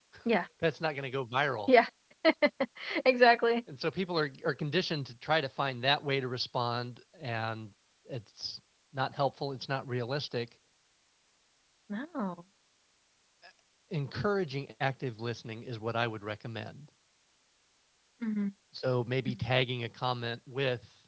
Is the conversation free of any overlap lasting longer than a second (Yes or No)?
Yes